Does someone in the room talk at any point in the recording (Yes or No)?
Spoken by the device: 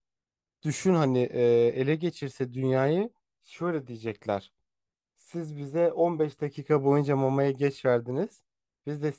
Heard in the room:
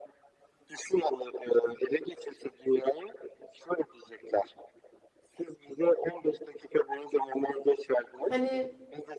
Yes